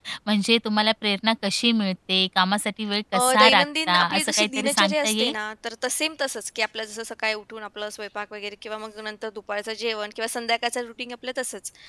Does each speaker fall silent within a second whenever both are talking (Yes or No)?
No